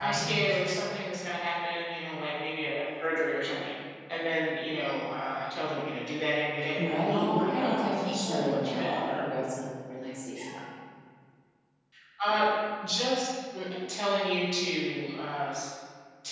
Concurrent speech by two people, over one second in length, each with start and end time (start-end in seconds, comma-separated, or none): 6.8-9.3